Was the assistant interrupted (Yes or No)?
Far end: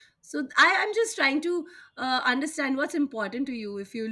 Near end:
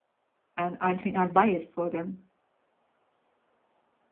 Yes